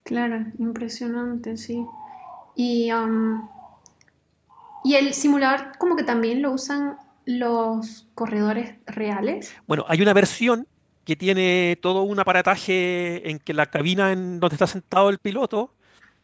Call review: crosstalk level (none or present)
none